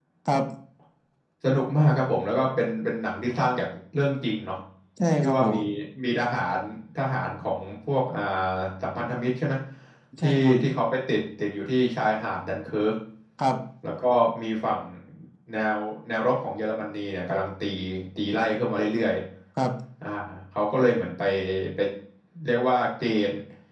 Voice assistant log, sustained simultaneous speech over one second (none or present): none